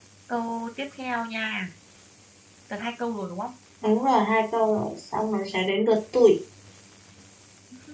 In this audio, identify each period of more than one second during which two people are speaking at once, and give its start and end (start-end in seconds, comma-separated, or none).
none